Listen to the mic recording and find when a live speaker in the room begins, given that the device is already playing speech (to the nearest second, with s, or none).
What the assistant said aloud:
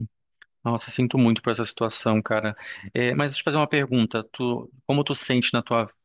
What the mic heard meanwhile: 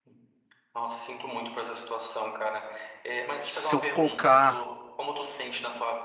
3 s